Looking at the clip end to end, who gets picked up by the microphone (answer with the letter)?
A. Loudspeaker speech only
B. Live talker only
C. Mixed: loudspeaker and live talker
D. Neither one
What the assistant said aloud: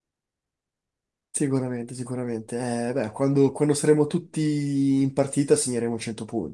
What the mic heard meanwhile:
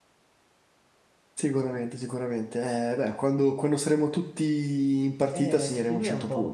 C